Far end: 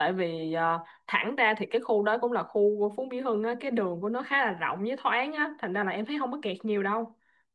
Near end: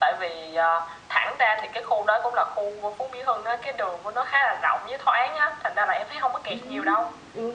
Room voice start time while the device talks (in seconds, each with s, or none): 6.5 s